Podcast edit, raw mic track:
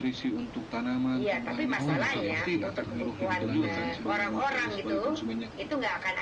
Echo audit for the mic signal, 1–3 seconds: both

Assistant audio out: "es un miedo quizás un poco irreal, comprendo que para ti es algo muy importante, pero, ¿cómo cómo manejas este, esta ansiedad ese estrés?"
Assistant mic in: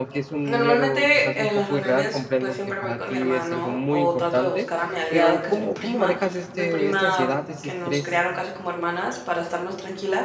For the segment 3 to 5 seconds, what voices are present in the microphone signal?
both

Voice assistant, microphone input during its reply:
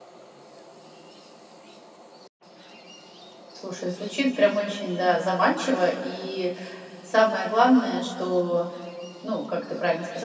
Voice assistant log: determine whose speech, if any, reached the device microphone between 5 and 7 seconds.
user only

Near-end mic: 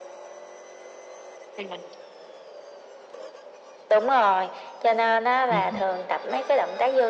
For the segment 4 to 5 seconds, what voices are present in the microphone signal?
echo only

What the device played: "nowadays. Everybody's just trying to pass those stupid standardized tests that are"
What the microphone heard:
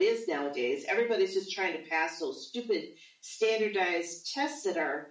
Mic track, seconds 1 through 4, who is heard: echo only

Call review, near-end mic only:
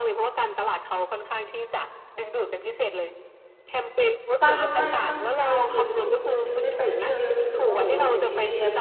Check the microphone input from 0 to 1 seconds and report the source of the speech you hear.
echo only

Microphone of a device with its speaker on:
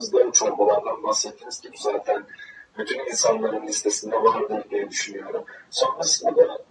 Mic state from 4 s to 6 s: echo only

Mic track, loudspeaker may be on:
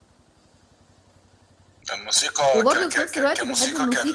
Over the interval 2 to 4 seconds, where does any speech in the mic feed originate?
both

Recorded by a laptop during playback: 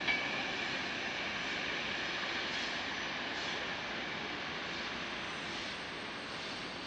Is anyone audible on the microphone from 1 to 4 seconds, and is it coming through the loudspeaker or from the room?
neither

